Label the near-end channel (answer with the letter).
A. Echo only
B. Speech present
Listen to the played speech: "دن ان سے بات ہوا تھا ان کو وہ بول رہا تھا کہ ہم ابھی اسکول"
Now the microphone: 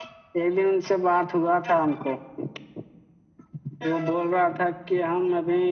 A